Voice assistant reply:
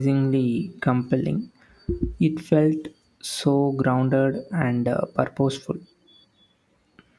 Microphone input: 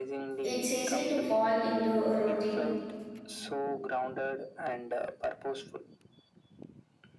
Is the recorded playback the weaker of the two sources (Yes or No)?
Yes